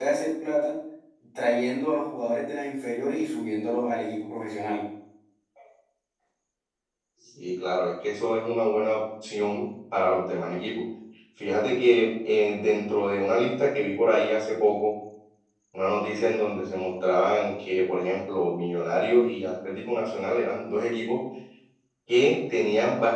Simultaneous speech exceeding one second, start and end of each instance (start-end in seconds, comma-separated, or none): none